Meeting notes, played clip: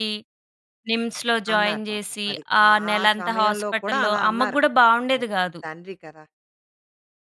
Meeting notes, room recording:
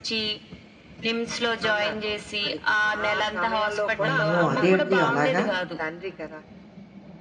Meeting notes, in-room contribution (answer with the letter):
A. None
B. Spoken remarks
B